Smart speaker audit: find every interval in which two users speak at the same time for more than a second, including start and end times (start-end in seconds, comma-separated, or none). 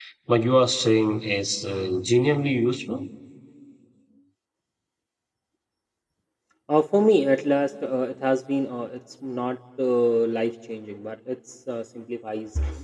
none